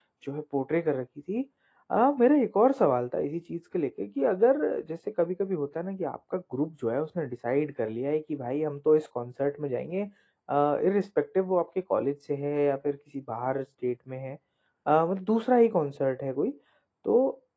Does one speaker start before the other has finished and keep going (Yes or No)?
No